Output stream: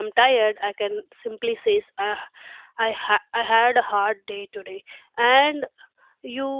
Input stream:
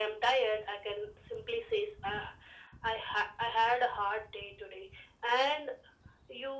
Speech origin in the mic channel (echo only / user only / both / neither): echo only